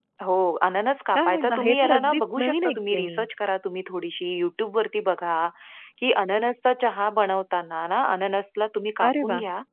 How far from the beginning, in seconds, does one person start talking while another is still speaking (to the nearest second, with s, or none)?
1 s